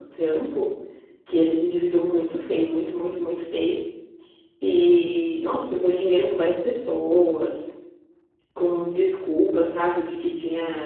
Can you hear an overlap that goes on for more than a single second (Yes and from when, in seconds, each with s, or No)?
No